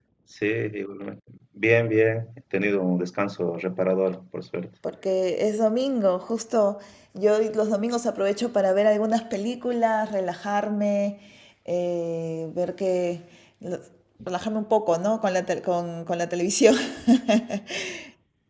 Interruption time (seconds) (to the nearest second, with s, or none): none